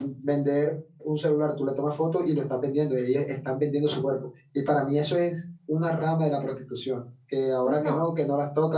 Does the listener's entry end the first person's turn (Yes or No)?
No